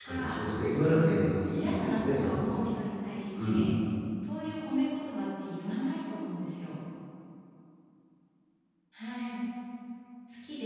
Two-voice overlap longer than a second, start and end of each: 0.9-2.5

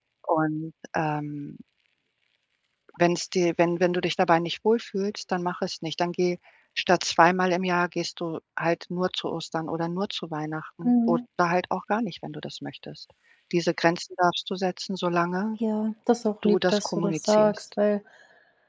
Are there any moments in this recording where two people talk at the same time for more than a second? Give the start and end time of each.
16.4-17.6

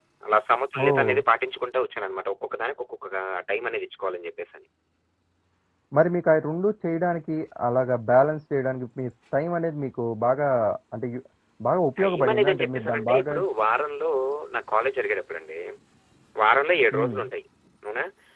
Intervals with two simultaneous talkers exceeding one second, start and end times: 12.0-13.3

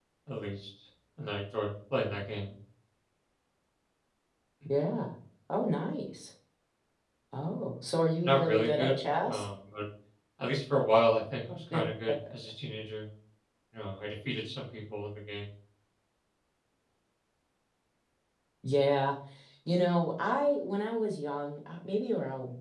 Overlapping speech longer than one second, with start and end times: 8.2-9.4

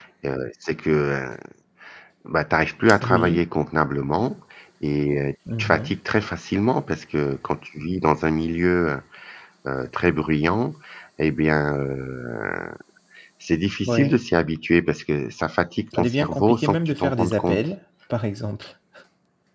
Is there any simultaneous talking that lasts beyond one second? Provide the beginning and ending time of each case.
16.0-17.6

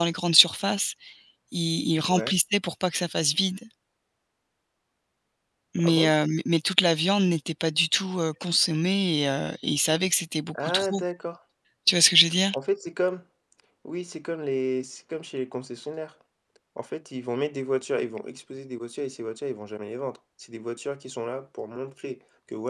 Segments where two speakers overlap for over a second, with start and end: none

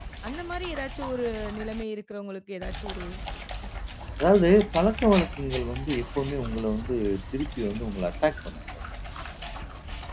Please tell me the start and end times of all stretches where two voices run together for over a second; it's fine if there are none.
none

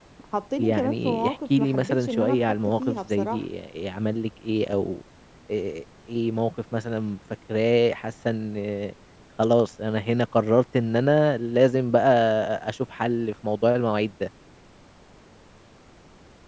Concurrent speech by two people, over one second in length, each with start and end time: 0.6-3.4

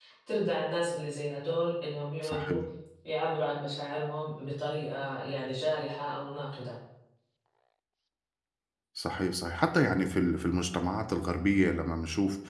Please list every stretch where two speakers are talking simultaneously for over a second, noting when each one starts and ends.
none

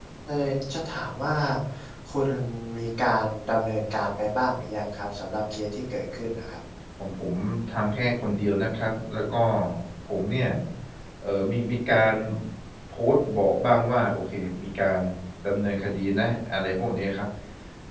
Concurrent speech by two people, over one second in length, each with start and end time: none

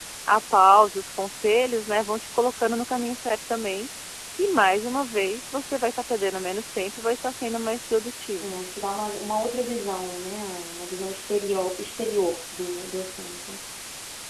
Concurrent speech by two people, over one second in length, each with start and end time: none

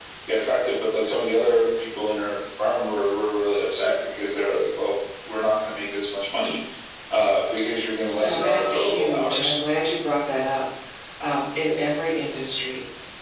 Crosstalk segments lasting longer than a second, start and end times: 8.0-9.5

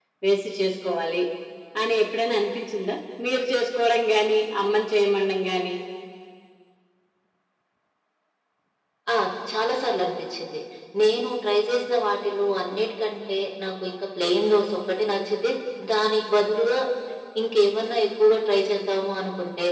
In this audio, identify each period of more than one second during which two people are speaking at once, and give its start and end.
none

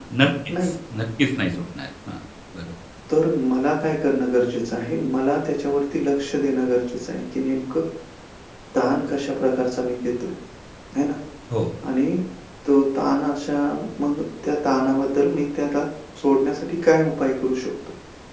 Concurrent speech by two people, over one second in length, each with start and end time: none

